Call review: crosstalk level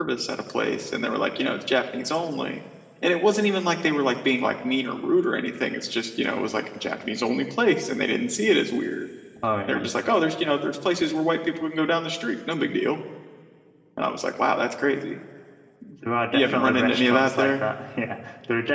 present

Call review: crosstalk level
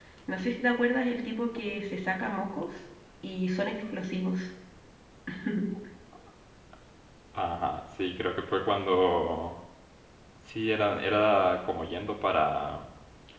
none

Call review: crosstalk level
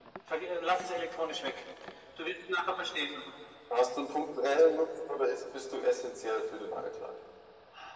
none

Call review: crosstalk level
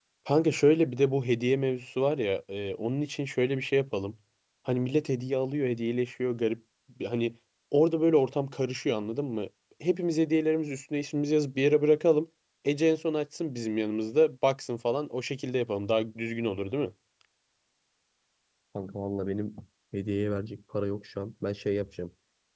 none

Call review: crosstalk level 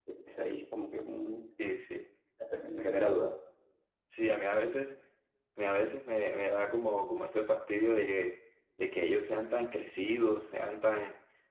none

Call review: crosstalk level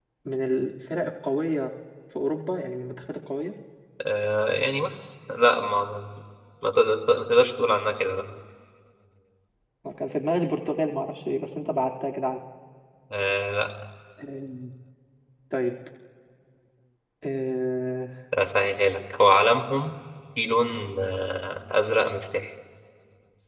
none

